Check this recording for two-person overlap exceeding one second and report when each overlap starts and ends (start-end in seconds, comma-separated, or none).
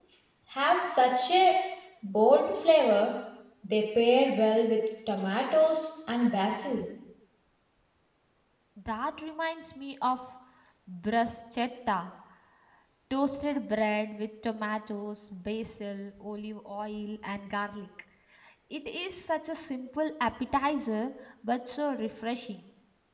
none